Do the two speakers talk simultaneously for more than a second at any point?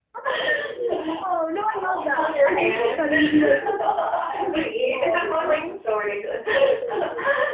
Yes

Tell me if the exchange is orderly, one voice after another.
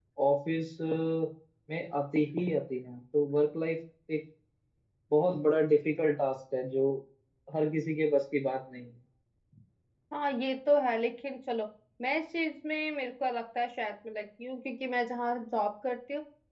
Yes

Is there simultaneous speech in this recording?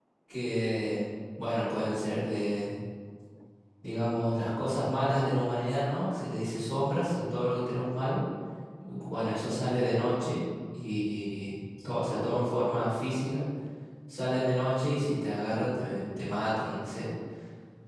No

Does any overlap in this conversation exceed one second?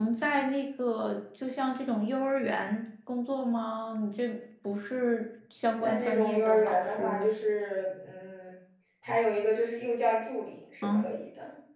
Yes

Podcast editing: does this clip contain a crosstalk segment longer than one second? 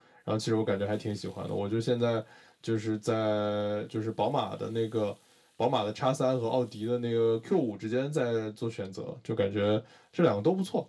No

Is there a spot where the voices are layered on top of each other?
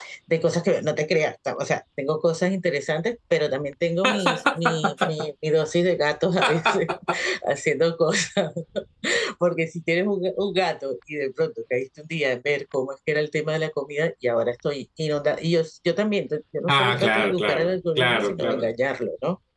Yes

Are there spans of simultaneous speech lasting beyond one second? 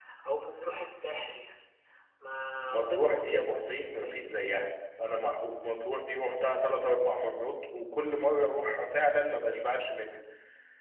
Yes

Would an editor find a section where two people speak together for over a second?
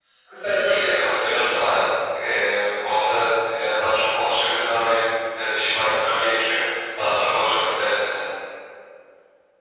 Yes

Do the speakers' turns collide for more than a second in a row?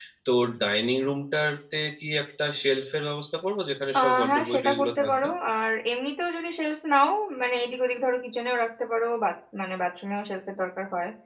Yes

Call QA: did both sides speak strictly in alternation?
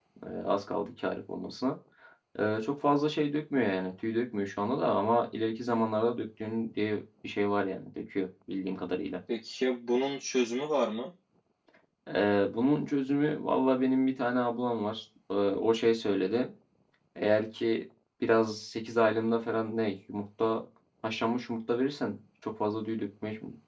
Yes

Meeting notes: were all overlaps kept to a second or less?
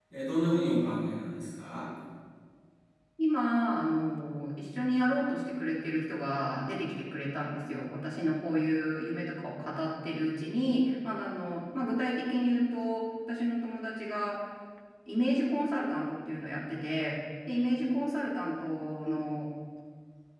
Yes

